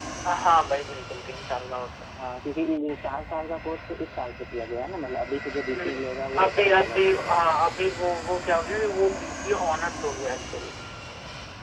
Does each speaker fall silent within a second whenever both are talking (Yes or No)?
No